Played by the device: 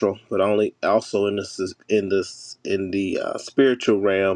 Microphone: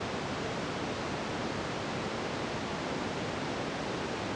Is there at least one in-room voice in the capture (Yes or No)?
No